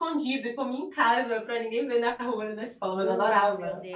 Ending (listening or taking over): taking over